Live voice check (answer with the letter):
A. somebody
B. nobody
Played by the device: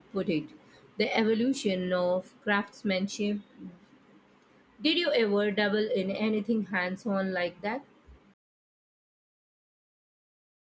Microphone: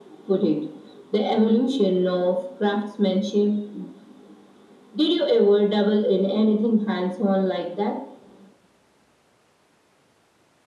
B